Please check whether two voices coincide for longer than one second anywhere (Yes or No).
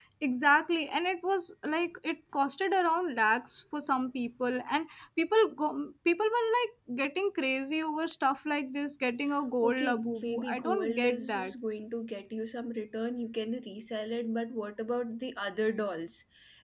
Yes